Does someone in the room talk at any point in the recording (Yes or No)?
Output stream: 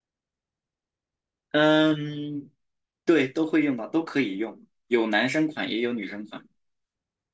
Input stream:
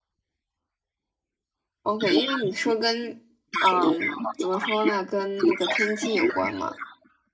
Yes